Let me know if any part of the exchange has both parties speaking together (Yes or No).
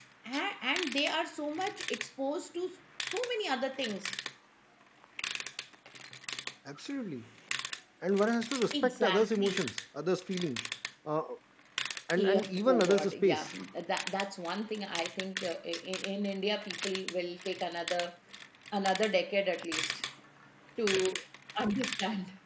Yes